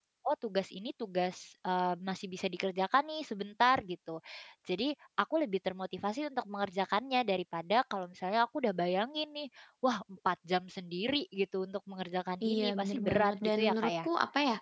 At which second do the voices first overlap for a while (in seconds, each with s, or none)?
12.4 s